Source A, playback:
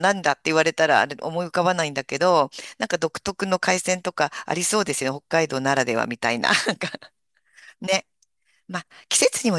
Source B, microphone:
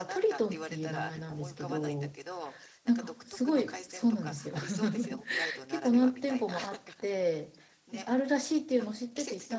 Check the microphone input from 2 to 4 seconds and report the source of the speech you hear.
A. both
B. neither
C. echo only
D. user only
A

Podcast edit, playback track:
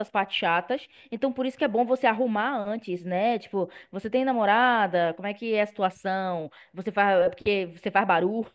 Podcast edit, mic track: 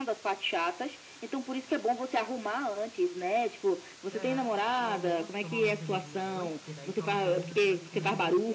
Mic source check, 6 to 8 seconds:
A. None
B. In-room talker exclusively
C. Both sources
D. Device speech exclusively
C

